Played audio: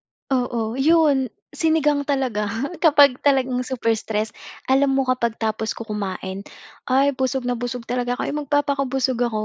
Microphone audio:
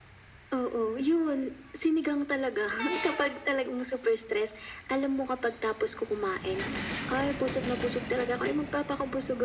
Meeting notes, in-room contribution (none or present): none